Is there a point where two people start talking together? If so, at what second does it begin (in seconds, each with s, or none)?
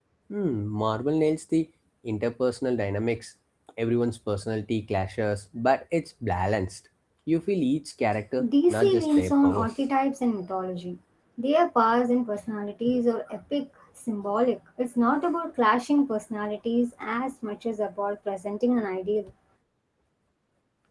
8.4 s